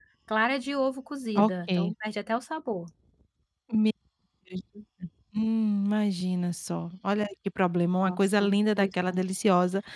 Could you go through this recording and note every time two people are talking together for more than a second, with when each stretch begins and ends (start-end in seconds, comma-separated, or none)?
none